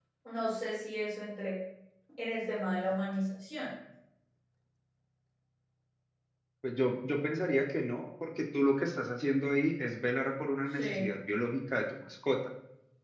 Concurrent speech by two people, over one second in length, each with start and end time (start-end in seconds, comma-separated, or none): none